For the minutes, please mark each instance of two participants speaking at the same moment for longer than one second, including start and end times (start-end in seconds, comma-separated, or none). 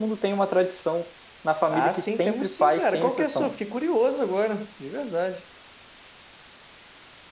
1.7-3.5